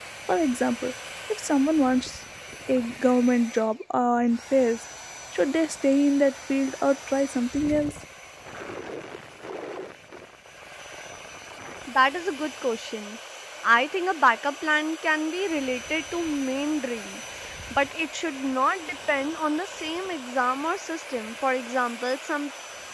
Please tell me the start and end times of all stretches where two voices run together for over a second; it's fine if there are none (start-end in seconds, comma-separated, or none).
none